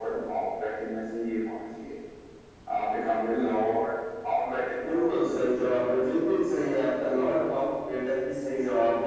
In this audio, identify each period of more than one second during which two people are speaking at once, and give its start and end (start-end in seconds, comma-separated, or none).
4.9-6.2